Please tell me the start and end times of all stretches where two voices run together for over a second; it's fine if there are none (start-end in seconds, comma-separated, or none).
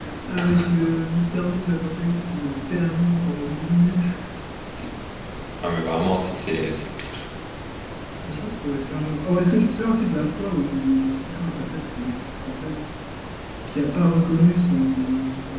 none